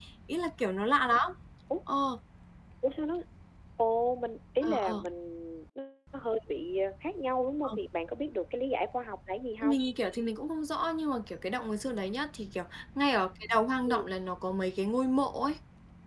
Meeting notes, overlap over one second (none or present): none